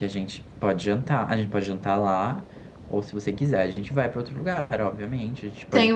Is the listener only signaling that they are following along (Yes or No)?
No